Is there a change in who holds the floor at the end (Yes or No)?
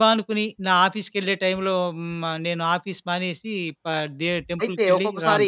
Yes